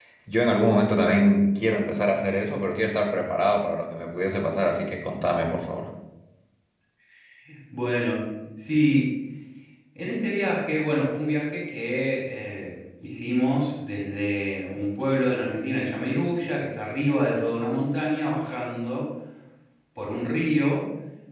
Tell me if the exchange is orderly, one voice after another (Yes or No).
Yes